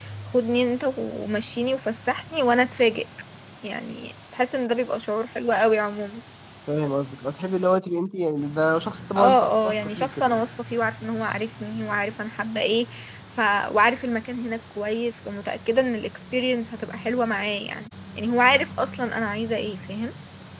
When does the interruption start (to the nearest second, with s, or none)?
9 s